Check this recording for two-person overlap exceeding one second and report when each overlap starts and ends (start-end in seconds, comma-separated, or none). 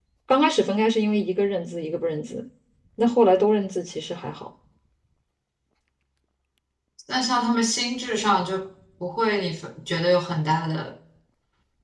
none